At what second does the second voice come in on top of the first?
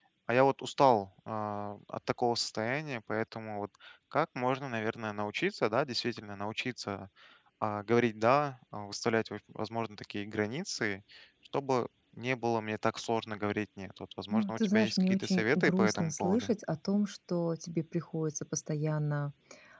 14.3 s

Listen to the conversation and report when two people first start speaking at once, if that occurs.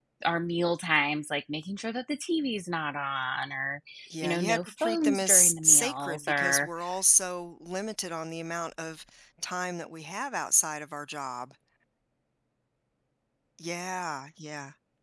4.2 s

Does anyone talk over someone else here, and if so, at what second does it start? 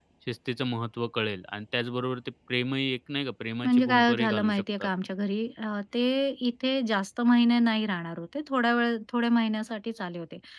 3.6 s

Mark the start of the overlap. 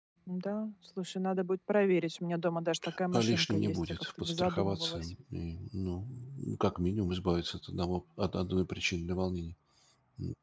3.1 s

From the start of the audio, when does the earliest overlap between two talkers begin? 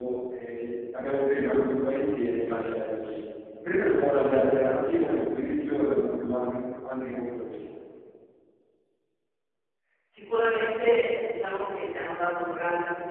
none

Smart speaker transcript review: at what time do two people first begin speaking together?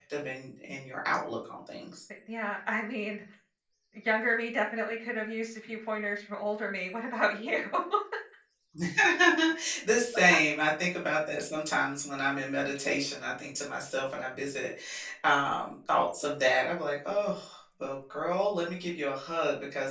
none

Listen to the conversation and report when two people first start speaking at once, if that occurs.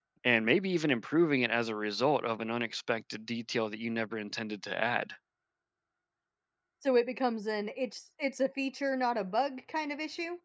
none

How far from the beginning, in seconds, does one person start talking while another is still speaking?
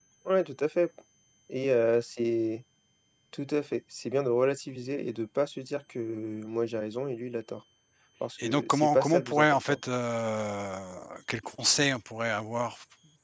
8.4 s

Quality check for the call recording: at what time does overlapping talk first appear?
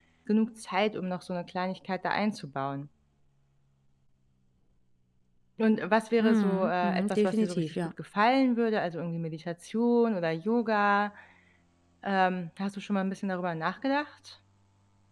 6.2 s

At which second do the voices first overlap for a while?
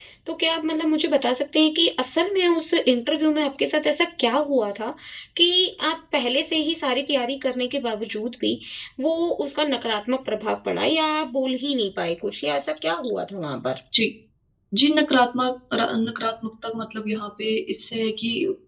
none

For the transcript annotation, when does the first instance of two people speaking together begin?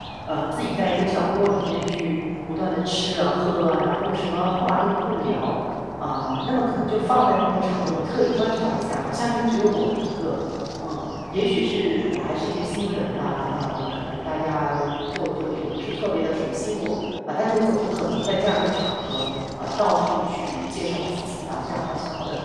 none

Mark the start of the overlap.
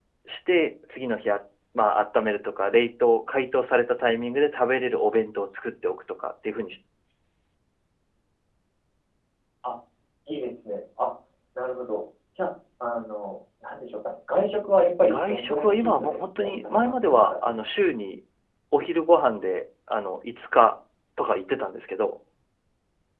15.1 s

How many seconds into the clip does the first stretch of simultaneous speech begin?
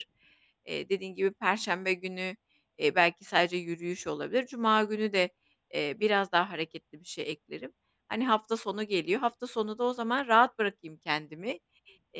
none

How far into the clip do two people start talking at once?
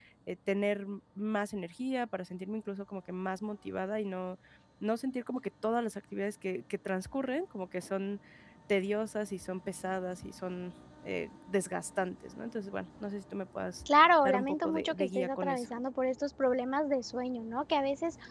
13.9 s

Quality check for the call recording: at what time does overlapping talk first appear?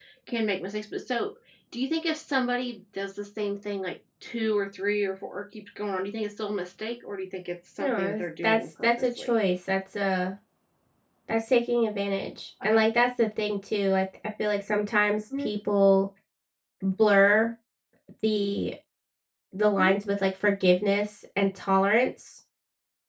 7.8 s

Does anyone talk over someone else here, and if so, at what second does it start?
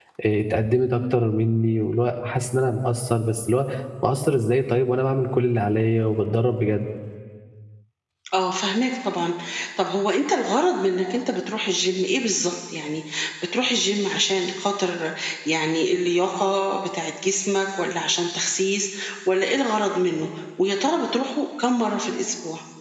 none

